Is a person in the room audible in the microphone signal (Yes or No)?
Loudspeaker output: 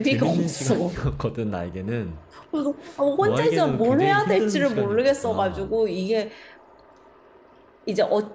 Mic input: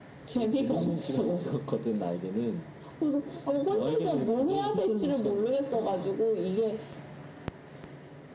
No